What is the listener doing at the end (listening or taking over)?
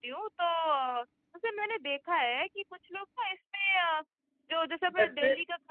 listening